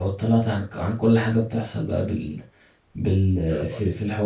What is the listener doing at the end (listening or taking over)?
listening